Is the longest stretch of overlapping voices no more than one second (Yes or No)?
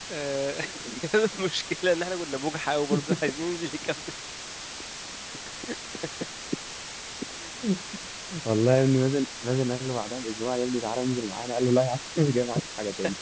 Yes